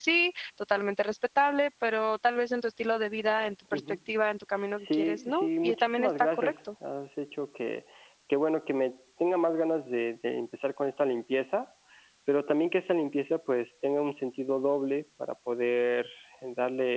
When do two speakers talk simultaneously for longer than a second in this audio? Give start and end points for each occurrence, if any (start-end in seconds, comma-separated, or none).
4.8-6.5